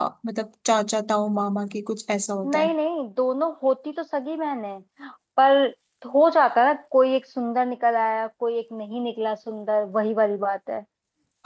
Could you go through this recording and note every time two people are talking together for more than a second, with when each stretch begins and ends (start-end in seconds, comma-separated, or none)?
none